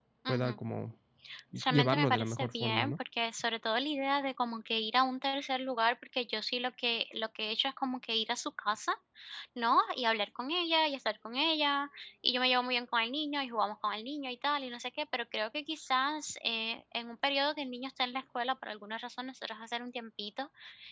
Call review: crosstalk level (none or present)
present